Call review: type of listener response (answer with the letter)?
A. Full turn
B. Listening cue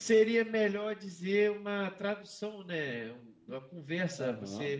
B